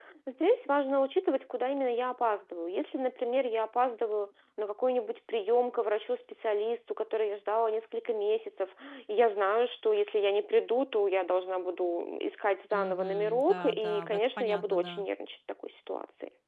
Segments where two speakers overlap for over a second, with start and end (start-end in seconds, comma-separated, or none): 12.7-15.0